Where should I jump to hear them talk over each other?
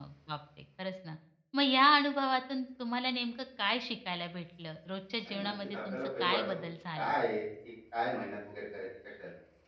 5.2 s

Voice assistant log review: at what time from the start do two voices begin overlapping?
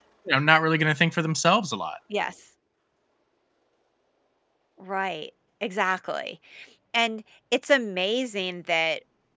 none

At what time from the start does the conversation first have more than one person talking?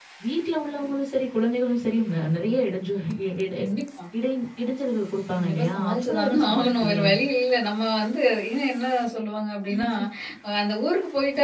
5.4 s

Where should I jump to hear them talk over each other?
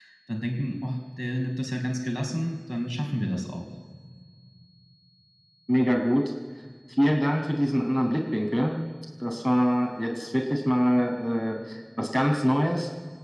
none

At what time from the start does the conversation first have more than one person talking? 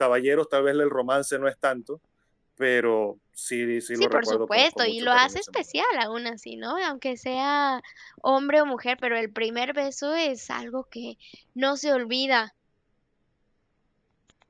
4.0 s

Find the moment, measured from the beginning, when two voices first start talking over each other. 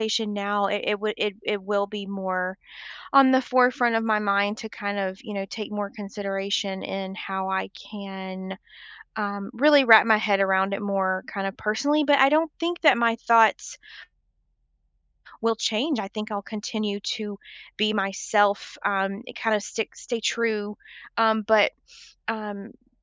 none

